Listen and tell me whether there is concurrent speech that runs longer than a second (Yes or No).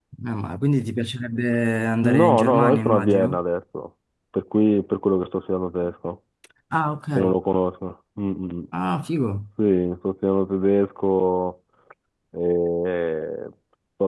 Yes